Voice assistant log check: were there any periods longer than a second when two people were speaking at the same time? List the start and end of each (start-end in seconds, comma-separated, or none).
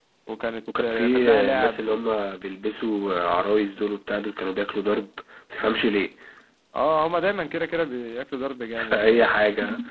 0.8-2.0